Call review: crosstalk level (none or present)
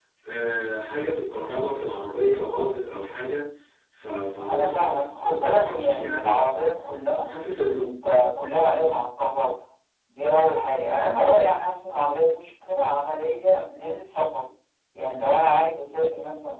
present